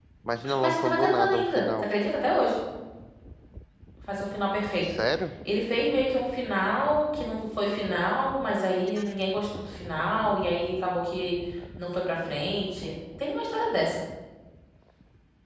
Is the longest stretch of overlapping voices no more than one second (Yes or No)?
No